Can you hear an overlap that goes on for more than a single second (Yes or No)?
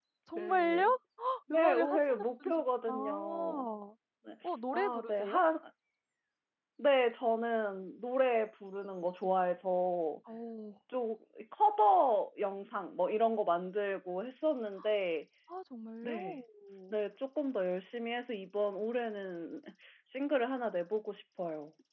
Yes